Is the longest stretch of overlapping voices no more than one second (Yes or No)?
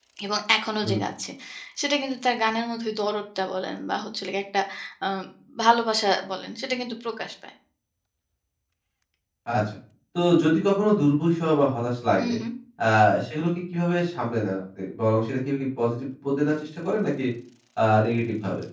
Yes